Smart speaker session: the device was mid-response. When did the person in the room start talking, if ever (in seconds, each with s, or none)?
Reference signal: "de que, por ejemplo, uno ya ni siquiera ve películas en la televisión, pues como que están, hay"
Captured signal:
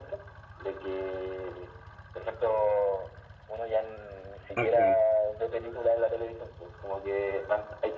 4.5 s